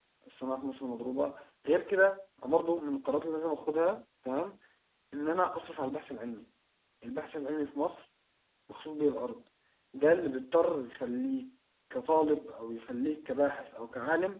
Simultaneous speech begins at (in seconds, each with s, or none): none